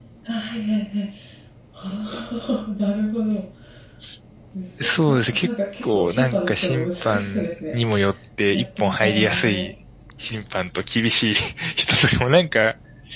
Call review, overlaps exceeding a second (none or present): present